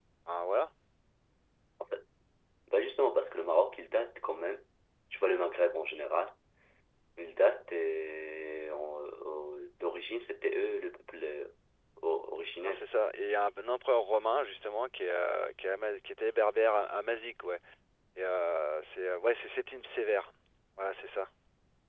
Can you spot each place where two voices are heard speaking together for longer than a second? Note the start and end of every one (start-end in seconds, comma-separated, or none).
none